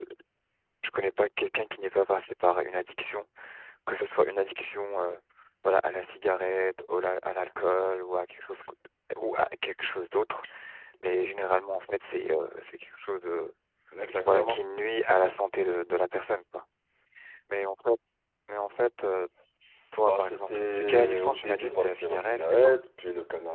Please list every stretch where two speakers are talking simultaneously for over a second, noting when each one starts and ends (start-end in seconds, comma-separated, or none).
20.0-22.8